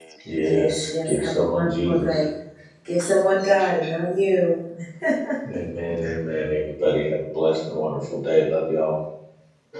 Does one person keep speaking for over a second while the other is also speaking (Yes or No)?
Yes